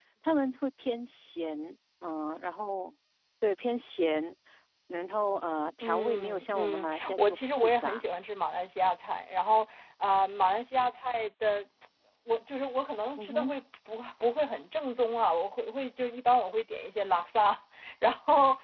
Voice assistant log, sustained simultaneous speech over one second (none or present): present